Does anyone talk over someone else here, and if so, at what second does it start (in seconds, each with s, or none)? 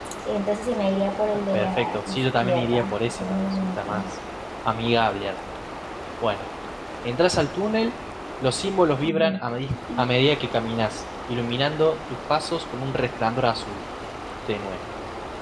1.5 s